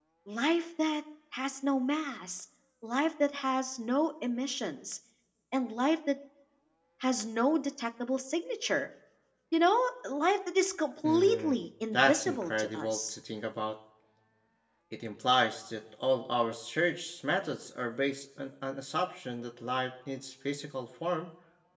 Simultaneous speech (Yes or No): Yes